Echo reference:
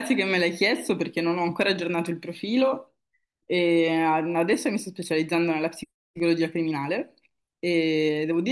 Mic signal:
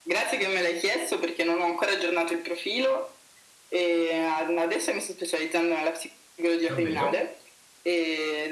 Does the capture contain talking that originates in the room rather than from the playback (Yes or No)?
Yes